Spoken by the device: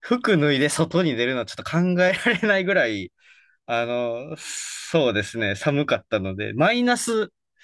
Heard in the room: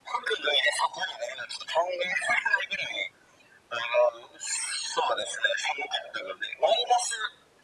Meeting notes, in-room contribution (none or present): none